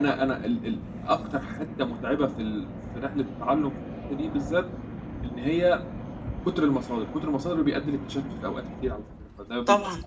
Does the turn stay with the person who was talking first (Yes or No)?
No